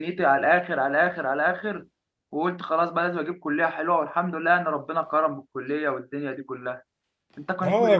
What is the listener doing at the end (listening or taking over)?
taking over